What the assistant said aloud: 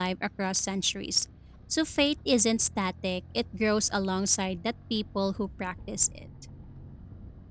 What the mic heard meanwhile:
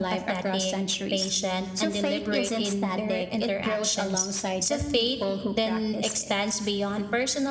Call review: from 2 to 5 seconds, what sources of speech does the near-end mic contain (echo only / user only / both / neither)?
both